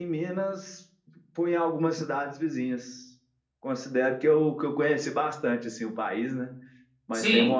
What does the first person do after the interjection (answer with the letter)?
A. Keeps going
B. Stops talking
A